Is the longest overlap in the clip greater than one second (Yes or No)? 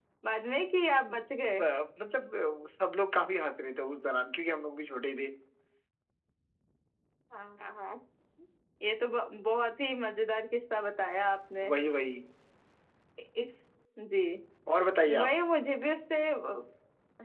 No